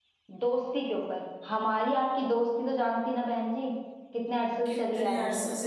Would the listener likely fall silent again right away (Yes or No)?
No